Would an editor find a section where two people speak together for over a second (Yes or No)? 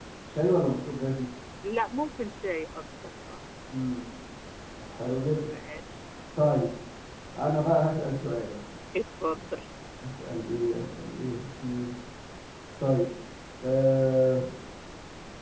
No